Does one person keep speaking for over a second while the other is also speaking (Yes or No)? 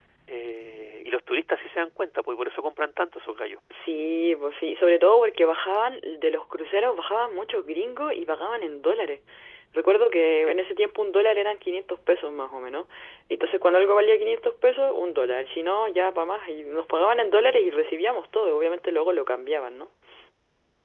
No